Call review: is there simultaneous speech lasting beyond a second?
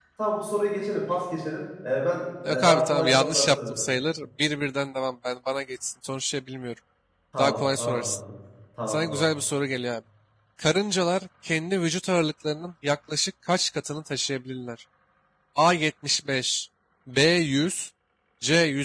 Yes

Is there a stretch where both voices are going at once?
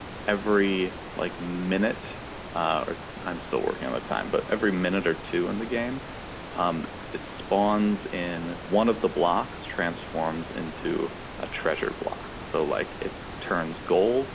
No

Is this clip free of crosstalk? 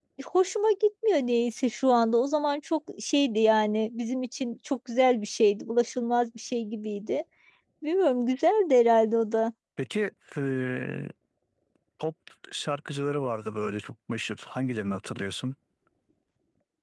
Yes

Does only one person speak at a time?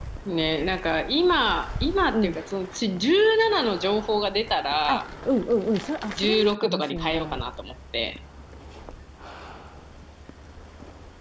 No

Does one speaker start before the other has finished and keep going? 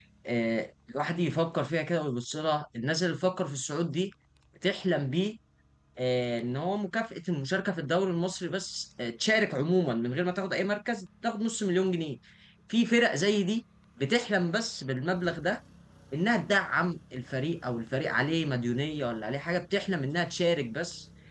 No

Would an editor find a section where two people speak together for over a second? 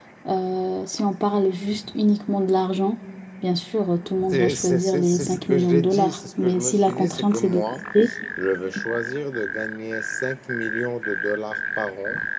Yes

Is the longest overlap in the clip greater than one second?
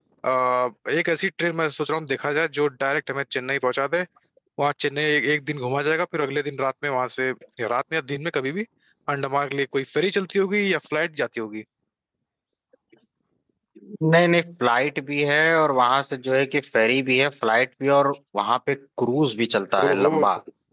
No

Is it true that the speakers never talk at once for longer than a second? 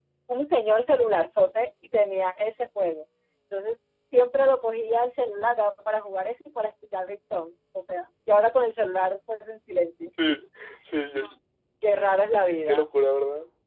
Yes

